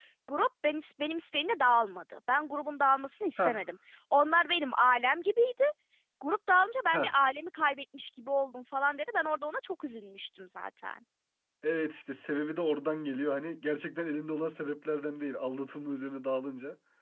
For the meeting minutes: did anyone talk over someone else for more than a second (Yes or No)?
No